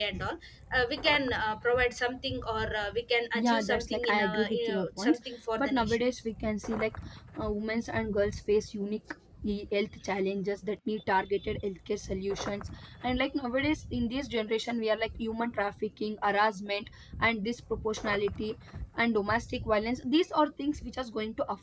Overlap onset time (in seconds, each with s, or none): 3.4 s